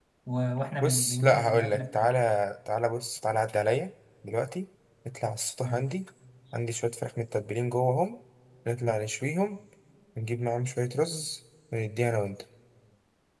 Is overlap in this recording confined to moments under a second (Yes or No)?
No